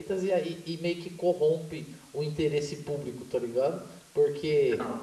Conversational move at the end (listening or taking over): listening